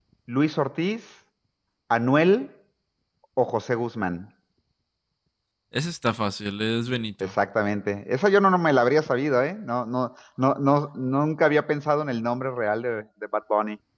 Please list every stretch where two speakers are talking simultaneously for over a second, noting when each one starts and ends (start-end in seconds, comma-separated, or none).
none